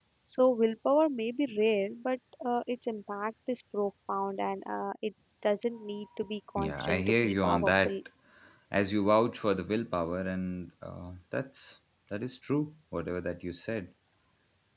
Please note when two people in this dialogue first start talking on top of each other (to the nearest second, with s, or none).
7 s